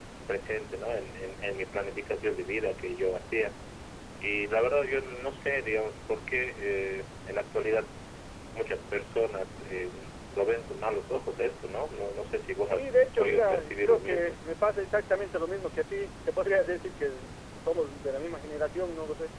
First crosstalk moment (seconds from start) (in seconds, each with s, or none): 12.7 s